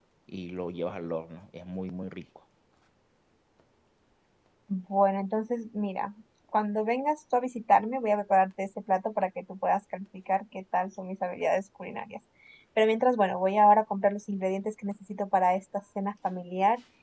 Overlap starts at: none

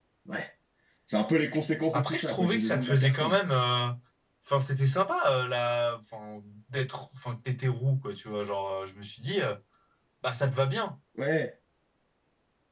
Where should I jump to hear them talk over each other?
1.9 s

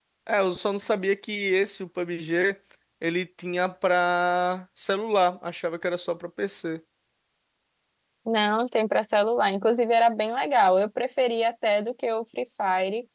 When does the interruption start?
none

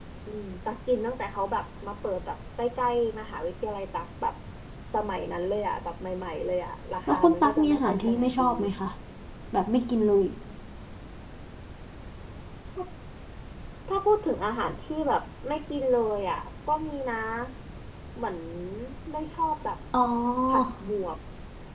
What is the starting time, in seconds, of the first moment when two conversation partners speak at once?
7.1 s

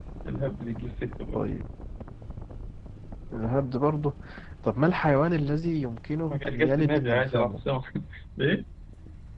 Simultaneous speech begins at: 6.3 s

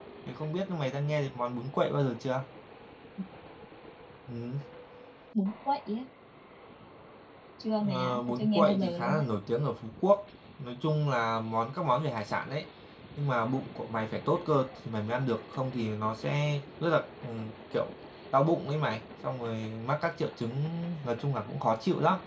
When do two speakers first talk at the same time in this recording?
7.8 s

